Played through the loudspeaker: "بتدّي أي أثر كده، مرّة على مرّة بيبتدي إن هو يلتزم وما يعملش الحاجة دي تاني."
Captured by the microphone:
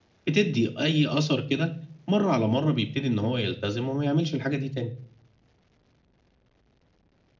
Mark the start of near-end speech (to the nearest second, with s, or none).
none